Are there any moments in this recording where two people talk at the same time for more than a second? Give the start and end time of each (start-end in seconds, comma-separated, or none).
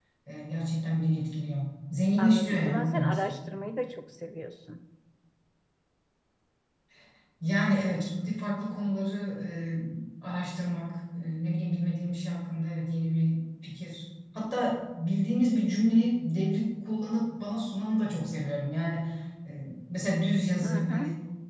2.2-3.4